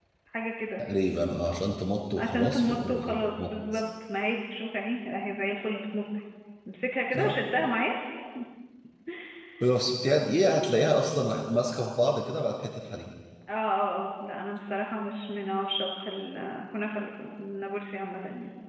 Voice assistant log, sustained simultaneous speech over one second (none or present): present